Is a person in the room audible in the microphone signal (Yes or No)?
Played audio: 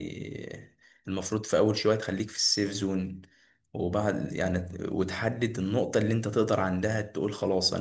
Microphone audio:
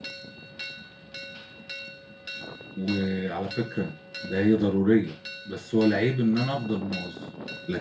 Yes